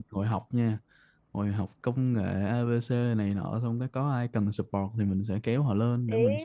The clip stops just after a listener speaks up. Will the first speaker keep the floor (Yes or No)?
No